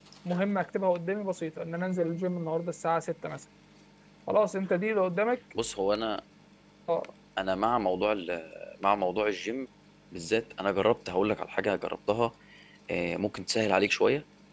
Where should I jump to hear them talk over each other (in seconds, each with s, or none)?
none